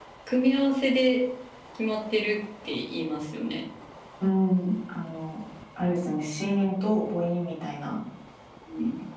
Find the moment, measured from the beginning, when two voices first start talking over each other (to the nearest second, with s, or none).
none